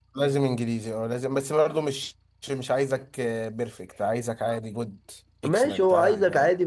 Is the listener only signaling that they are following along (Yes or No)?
No